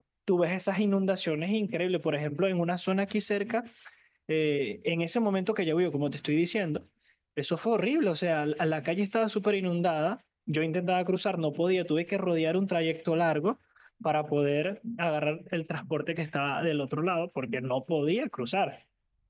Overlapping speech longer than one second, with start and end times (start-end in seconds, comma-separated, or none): none